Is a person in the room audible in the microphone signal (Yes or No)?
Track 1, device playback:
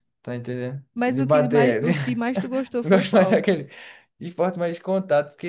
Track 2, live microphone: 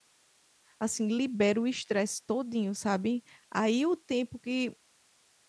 Yes